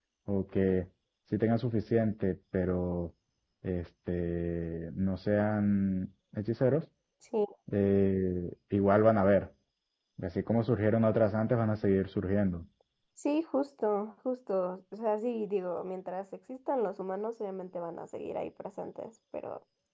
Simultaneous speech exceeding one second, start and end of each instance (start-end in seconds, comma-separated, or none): none